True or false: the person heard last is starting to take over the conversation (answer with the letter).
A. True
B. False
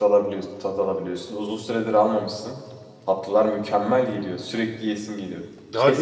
A